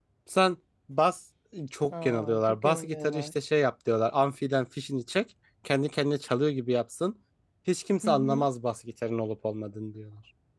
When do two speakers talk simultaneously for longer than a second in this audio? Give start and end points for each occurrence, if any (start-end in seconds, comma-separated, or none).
2.0-3.3